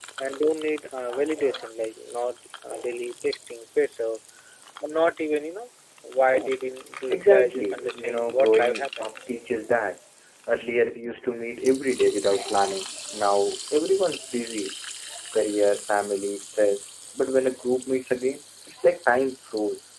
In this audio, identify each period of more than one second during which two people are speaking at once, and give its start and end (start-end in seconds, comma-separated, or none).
7.1-9.1